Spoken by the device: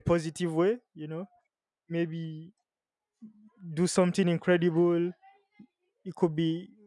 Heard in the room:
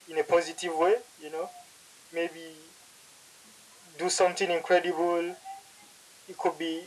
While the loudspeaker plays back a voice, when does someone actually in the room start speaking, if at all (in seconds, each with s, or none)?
none